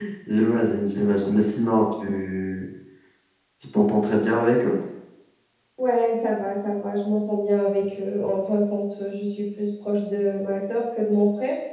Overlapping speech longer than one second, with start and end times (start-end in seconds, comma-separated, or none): none